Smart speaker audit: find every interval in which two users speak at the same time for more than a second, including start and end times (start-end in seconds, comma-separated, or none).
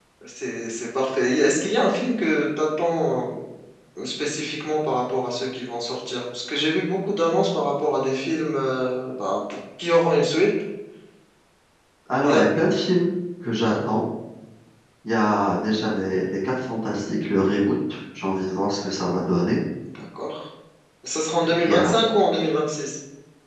none